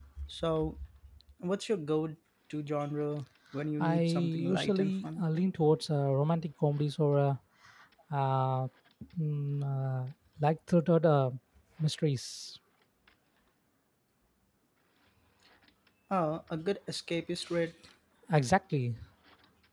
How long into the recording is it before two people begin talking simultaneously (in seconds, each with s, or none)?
3.8 s